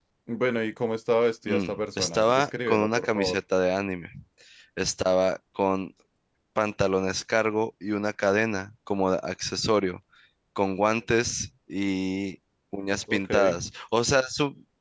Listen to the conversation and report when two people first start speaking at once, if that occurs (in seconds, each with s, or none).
1.5 s